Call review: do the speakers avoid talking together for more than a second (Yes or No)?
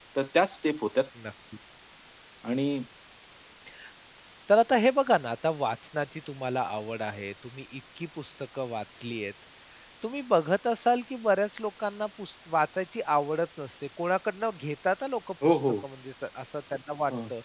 Yes